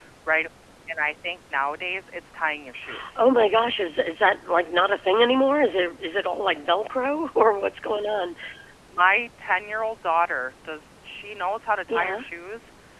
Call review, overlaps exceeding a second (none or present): none